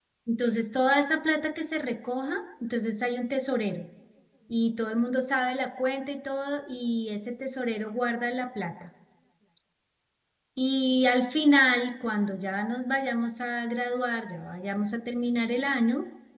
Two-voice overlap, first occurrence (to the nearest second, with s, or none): none